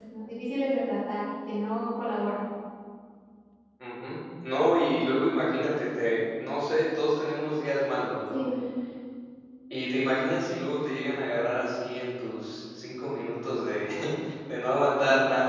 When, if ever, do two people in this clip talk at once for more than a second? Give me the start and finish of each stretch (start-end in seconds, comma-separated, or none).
none